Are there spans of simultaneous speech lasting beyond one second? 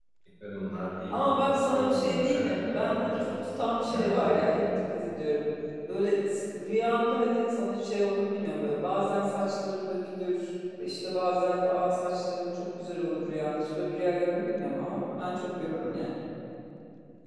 Yes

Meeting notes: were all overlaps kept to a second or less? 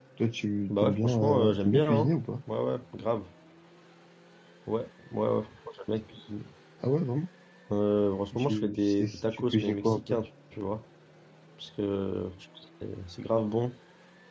No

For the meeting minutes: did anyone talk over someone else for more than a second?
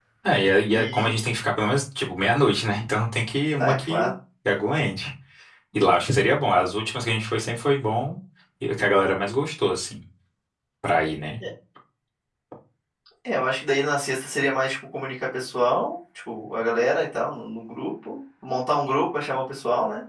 No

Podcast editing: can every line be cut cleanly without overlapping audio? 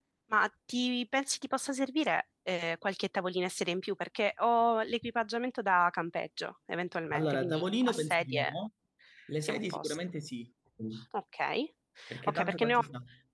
No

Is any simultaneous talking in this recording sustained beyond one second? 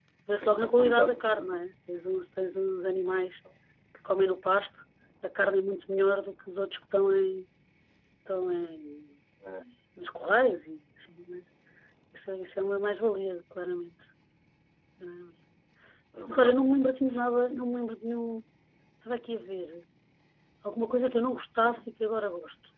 Yes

